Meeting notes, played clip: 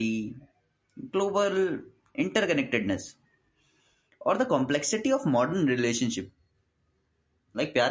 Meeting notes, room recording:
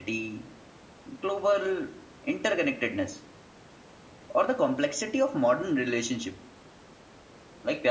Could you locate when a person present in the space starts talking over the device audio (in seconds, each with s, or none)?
none